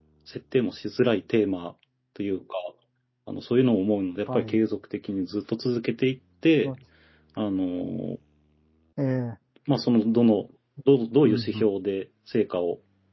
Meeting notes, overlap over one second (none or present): none